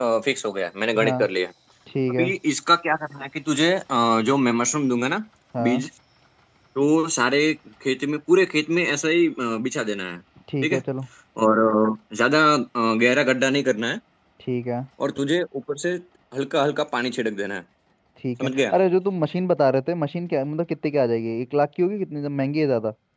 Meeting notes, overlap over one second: none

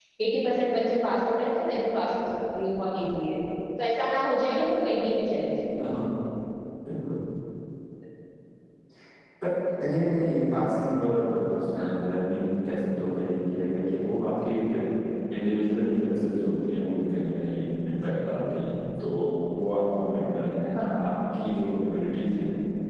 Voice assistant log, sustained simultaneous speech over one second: none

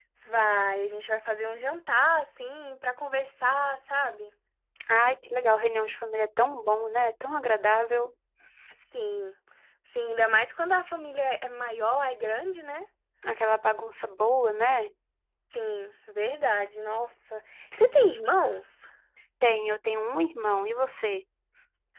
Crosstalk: none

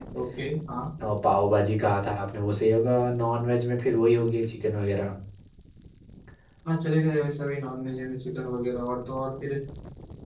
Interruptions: none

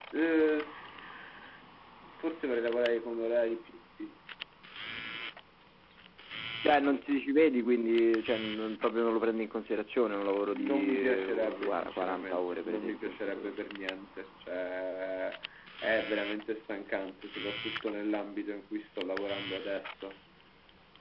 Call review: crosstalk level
present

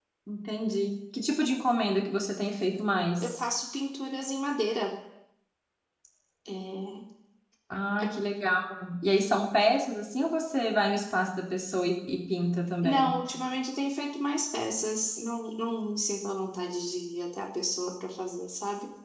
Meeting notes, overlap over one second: none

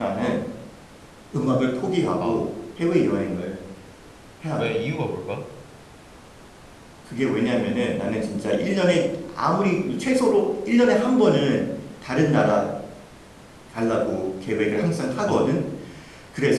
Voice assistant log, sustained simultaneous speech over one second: none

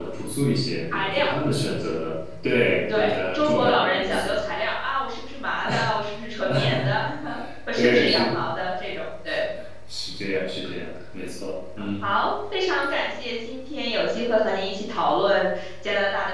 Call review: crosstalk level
present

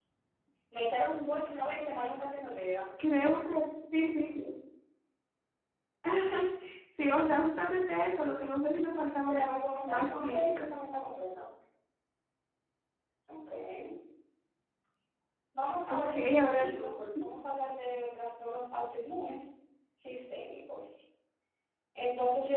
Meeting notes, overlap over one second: present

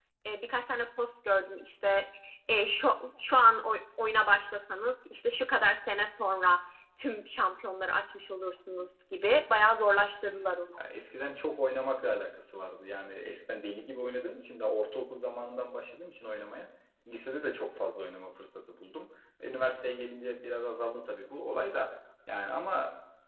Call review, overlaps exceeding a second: none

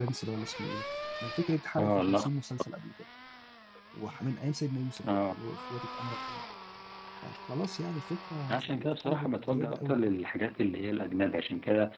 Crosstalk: present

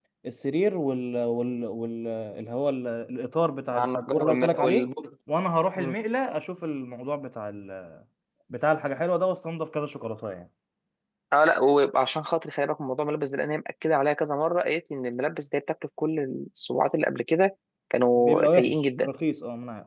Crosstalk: present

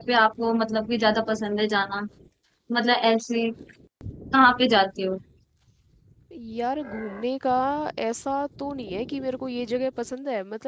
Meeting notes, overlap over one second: none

